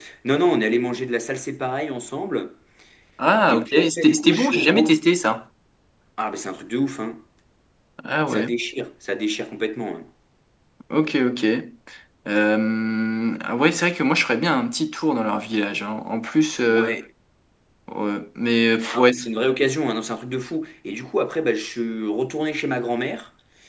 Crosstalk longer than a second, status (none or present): present